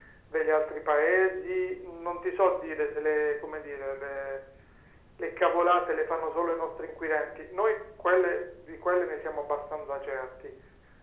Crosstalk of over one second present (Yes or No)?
No